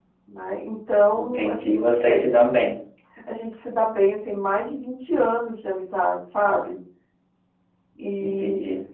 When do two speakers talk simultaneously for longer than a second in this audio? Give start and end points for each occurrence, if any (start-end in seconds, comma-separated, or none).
1.1-2.4